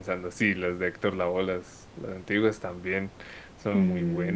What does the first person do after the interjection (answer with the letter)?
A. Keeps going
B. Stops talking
B